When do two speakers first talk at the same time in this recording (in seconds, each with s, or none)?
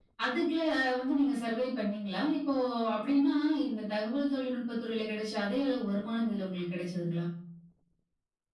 none